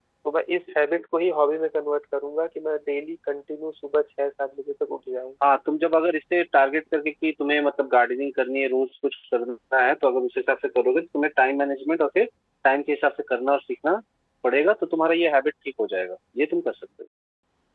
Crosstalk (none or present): none